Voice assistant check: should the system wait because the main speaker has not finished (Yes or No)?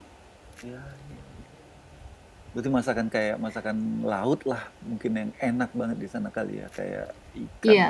No